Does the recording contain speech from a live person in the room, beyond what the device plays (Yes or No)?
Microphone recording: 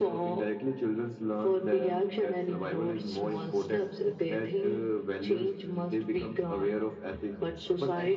No